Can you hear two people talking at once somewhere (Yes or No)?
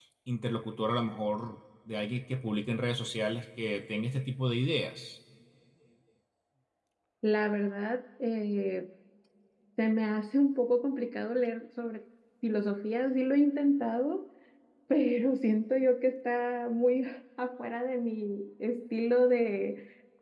No